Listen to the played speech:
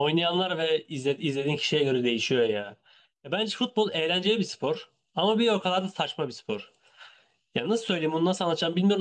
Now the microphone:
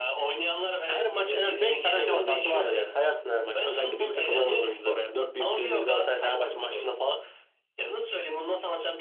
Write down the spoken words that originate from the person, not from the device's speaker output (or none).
her maç en az 5 tane hakem hatası vardır yani. Sayarsın her maç. Özellikle büyük takımların oynadığı veya 4 büyük dediğimiz Galatasaray Fenerbahçe maçlarında falan